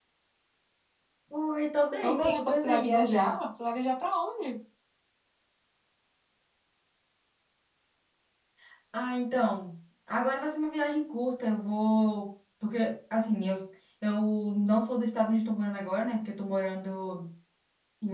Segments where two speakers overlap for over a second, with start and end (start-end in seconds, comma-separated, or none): 2.0-3.4